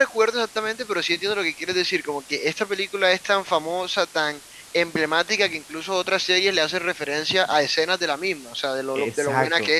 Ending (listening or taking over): taking over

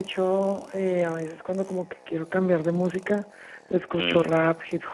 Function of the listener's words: listening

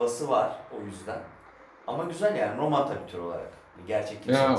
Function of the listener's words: taking over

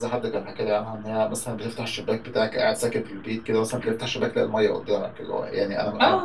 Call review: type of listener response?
taking over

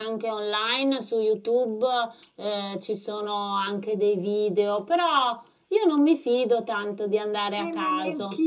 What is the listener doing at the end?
taking over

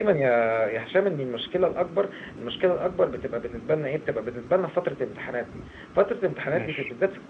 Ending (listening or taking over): listening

